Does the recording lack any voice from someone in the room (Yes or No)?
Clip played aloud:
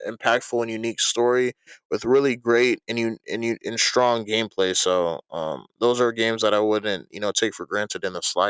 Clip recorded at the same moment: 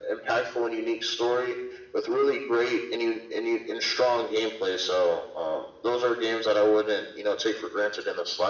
Yes